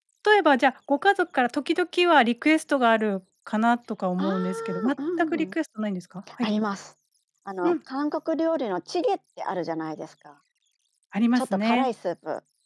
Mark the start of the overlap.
4 s

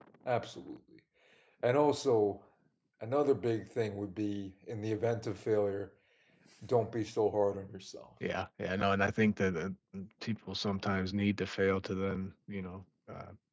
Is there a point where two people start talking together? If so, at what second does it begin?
none

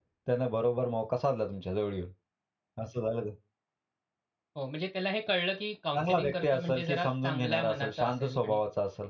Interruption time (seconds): 6 s

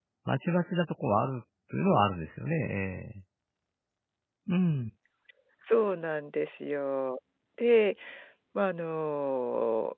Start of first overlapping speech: none

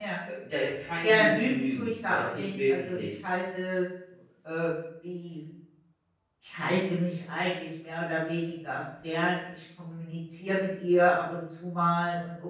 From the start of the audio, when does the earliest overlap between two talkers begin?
1 s

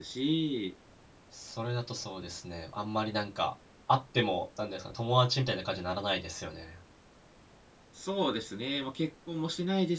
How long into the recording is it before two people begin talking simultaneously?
none

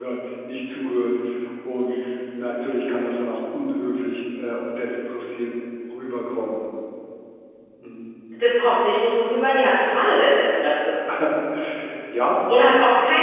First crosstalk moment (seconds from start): none

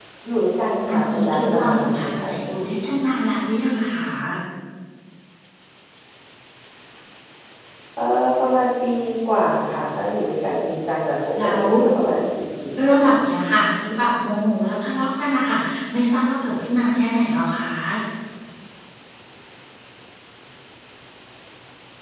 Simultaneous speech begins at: 1 s

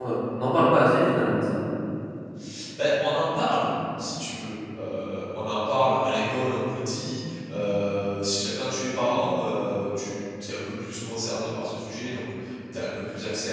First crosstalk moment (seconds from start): none

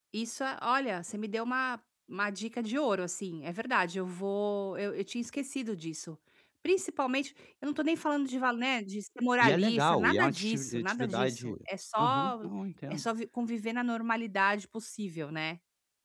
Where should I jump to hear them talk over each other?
9 s

